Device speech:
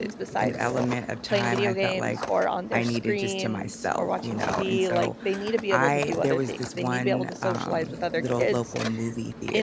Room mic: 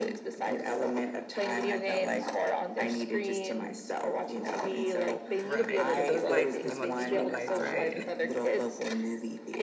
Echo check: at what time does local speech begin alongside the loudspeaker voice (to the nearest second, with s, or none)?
5 s